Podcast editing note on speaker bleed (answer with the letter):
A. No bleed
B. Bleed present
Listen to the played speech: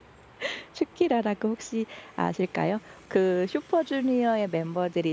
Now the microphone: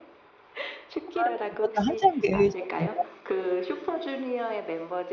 B